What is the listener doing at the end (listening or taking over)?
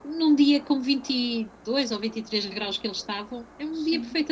taking over